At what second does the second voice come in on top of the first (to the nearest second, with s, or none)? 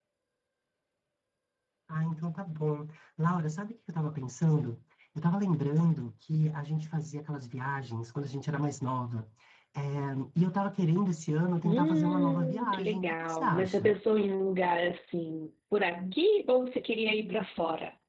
12 s